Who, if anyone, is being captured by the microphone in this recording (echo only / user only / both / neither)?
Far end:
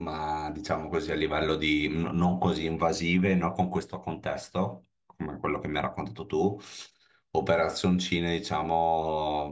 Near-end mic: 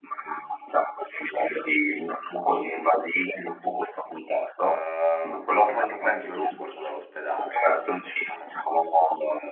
both